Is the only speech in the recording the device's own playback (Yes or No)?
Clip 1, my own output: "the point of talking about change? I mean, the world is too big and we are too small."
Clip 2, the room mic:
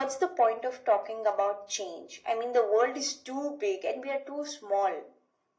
Yes